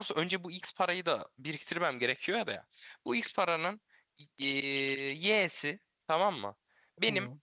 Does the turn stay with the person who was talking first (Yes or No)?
Yes